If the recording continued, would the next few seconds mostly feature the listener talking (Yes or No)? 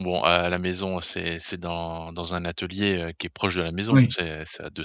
No